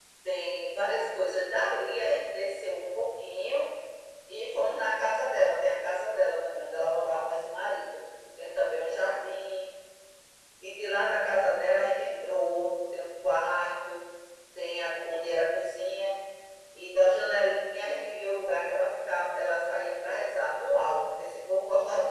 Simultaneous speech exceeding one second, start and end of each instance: none

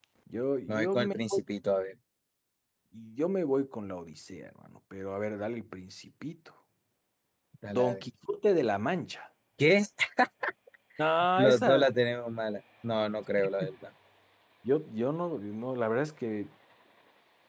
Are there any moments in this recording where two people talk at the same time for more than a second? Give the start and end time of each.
none

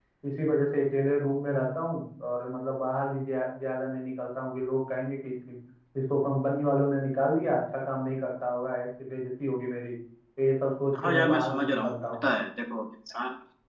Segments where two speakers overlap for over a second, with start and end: 10.9-12.2

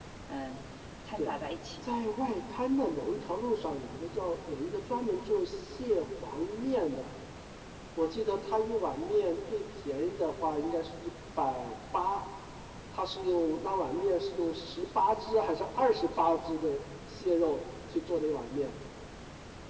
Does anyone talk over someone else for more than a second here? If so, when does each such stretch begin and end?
none

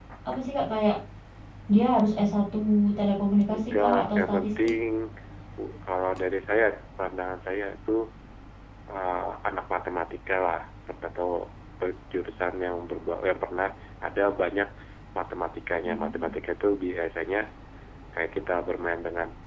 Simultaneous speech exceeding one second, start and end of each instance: 3.5-4.7

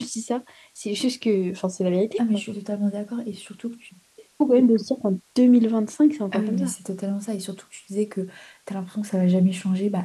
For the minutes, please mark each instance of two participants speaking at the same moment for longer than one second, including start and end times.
none

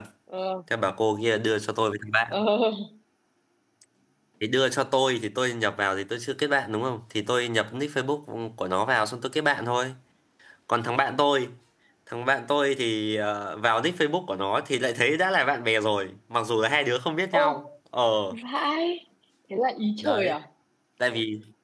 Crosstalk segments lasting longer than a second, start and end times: none

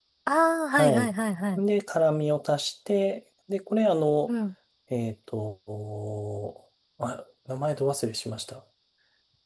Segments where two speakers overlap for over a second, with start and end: none

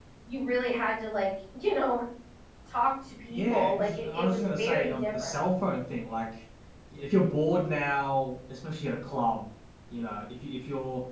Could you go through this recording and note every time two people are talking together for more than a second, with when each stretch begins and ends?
3.3-5.4

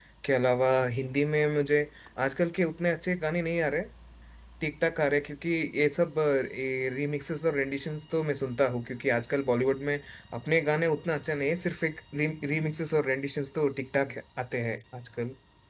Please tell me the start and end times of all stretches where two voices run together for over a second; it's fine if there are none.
none

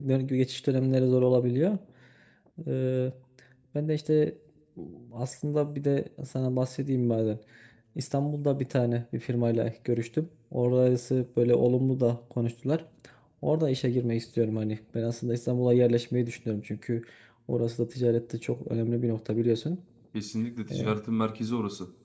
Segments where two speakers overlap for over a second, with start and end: none

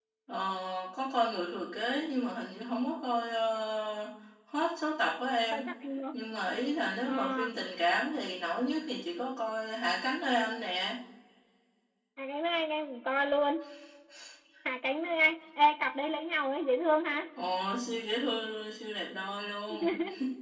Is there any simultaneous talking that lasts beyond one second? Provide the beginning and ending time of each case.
none

